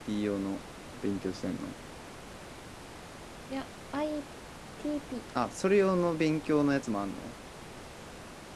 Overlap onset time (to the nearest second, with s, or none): none